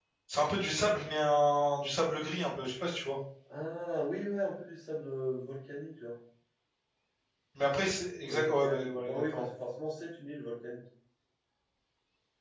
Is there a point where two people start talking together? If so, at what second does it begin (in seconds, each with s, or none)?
8.2 s